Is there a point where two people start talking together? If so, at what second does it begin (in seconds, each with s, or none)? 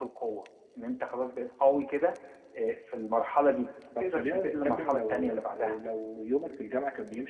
4.0 s